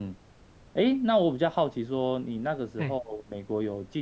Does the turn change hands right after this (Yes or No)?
No